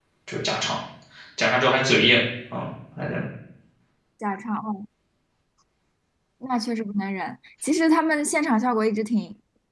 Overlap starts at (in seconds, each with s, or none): none